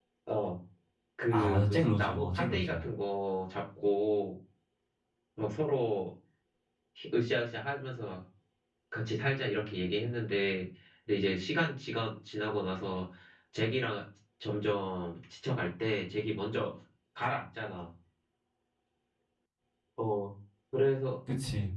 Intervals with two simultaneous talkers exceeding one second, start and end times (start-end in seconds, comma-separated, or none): 1.3-2.8